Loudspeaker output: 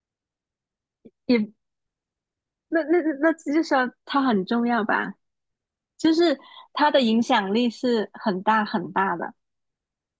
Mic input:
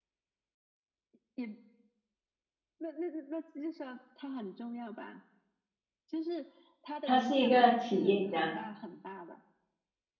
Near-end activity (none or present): present